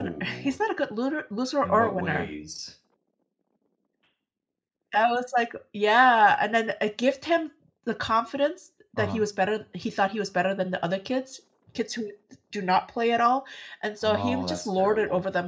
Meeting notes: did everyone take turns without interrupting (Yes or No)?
No